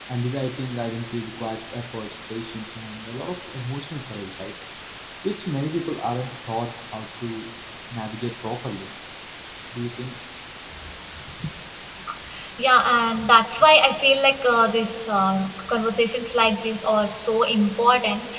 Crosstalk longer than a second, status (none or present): none